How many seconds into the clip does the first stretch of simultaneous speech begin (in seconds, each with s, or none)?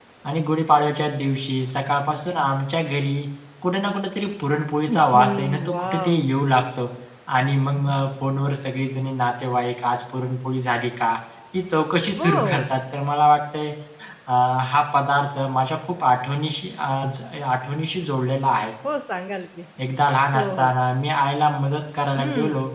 5.0 s